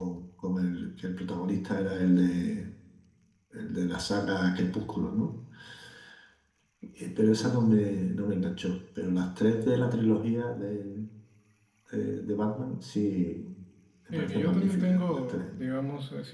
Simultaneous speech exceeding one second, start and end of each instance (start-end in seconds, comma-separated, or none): 14.1-15.7